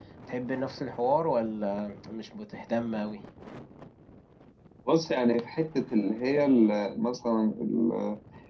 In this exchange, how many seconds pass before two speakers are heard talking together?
none

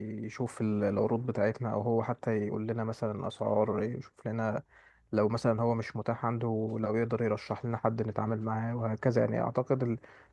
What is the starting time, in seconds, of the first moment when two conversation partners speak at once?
none

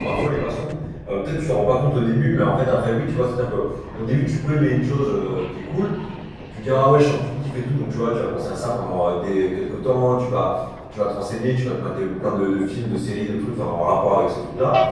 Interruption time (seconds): none

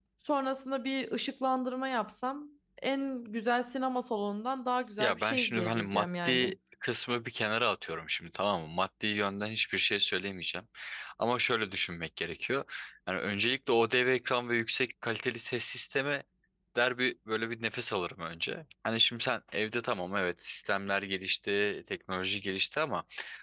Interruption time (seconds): 5.0 s

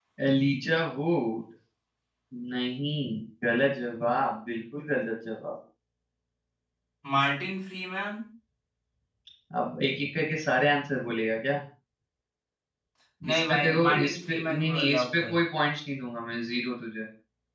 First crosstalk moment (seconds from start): 13.3 s

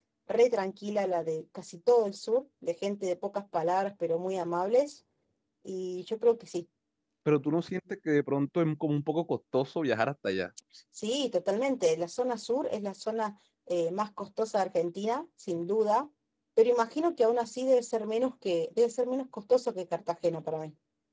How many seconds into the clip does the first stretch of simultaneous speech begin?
none

